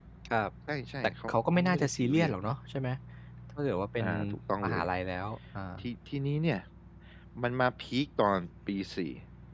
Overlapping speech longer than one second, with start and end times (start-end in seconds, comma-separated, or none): 1.0-2.4